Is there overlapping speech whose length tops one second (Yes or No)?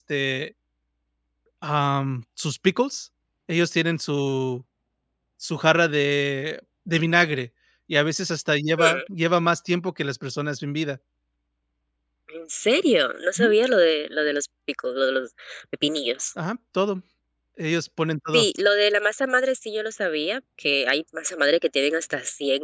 No